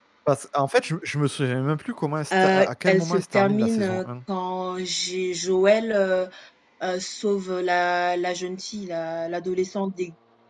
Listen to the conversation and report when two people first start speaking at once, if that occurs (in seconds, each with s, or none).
2.3 s